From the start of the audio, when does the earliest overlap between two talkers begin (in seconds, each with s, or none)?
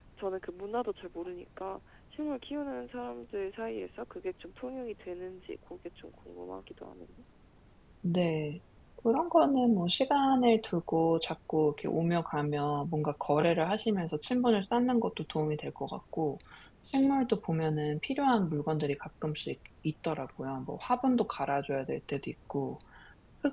none